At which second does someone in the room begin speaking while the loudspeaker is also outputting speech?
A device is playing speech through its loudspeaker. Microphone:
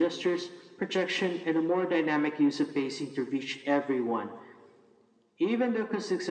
none

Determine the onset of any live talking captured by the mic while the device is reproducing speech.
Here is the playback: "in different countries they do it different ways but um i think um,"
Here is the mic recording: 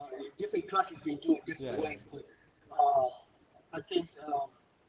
1.6 s

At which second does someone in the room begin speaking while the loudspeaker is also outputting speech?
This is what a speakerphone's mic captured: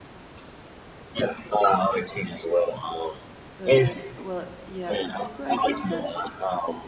3.5 s

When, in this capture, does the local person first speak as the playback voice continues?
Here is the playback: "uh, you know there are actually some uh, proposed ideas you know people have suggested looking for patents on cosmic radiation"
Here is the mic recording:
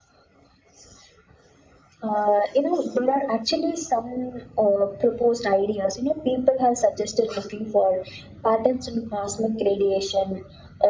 none

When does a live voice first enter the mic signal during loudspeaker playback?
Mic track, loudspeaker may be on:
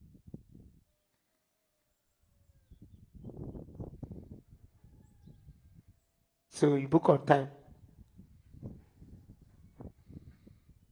6.5 s

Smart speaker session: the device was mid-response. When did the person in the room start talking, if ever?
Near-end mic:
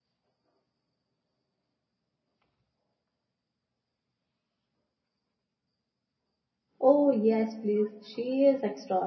6.8 s

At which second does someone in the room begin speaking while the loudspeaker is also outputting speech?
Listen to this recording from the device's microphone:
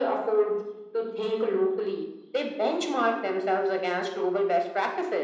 none

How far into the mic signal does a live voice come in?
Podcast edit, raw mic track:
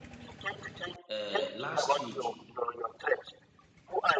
1.1 s

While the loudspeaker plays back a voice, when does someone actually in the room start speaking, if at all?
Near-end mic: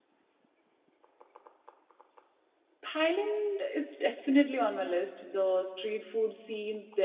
2.8 s

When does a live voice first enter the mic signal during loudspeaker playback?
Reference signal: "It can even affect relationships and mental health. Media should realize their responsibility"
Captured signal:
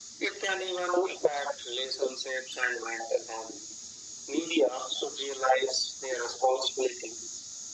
none

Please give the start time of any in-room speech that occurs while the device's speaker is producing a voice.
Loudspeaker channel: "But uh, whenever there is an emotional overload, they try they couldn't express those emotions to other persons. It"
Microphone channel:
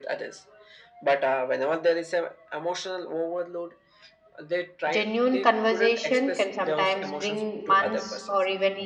4.9 s

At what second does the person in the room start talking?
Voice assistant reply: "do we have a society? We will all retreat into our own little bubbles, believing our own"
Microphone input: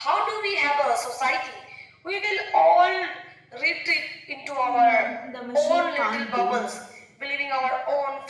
4.6 s

